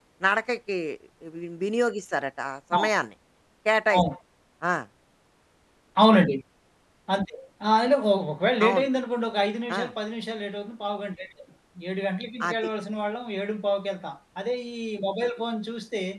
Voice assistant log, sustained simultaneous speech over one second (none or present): none